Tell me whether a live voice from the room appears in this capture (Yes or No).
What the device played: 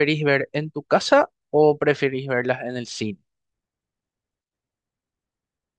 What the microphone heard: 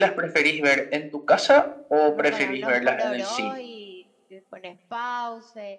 Yes